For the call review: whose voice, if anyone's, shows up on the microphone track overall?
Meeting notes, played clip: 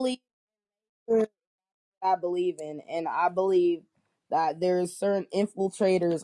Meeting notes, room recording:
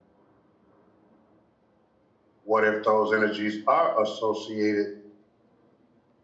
user only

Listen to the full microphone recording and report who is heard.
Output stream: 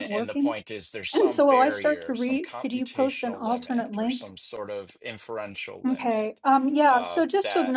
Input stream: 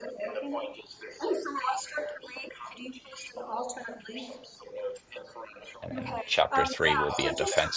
both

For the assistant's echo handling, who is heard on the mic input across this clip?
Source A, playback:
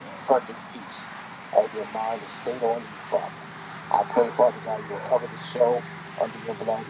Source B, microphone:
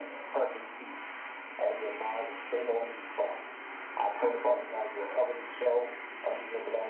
echo only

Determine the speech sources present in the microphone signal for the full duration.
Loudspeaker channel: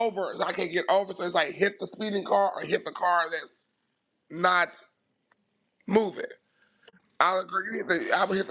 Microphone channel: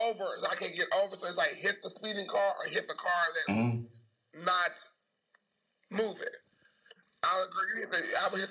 both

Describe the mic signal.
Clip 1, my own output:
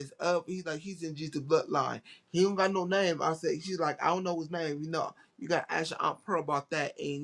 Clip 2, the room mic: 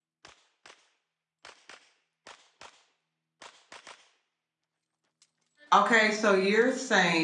user only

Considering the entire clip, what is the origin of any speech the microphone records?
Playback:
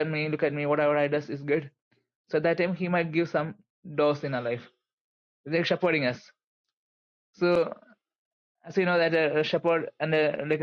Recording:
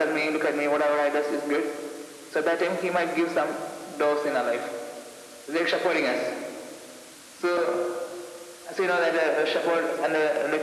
echo only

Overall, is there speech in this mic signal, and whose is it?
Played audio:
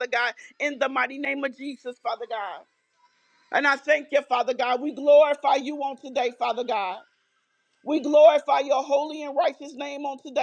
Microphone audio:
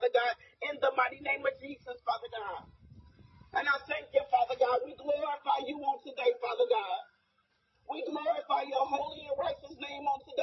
echo only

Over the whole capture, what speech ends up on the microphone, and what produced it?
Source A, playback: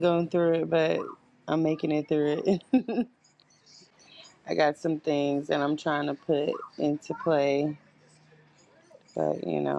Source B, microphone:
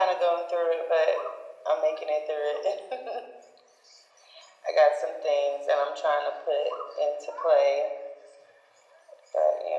echo only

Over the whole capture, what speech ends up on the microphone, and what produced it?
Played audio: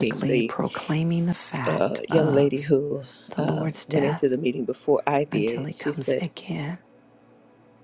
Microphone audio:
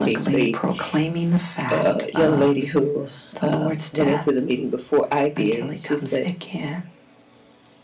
echo only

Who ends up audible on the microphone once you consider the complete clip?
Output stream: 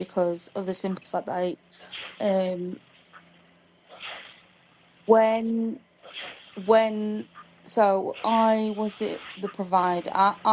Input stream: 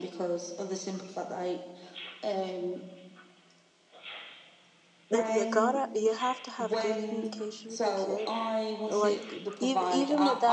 both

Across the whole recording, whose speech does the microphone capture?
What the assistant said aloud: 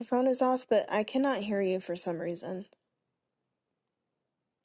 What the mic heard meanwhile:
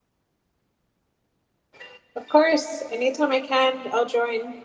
user only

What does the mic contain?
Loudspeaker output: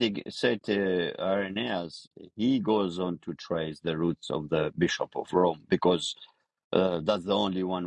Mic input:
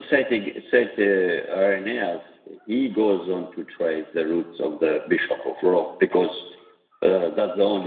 echo only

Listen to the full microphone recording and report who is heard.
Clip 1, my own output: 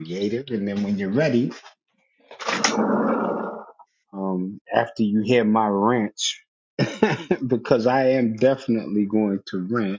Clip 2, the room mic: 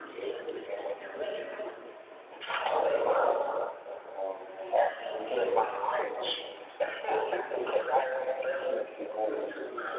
echo only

